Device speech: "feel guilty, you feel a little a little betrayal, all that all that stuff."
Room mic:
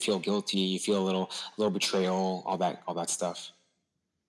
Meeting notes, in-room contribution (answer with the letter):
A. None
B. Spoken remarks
A